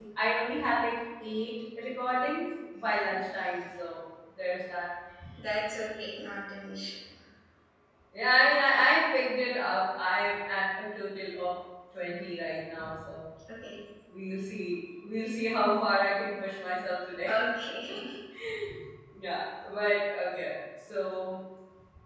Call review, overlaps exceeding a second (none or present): none